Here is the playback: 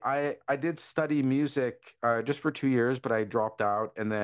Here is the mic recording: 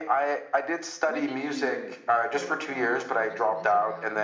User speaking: Yes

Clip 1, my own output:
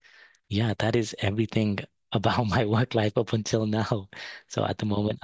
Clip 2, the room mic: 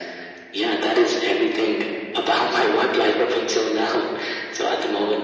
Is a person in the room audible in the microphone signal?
No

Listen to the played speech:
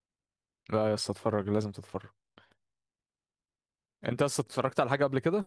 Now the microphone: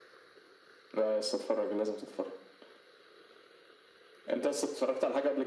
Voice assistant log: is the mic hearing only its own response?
Yes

